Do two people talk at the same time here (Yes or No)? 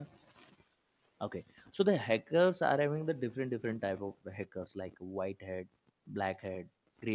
No